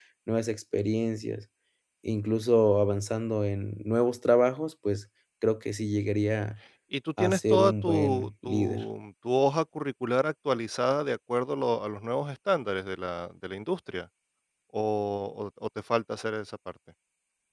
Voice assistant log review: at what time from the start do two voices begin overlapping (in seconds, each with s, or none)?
7.2 s